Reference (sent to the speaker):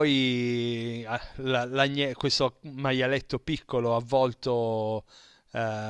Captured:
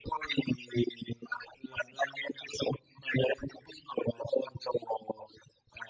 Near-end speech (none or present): none